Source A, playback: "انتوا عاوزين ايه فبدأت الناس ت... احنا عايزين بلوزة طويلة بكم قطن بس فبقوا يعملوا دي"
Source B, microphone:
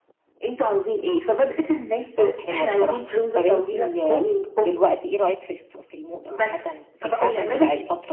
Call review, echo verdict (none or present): present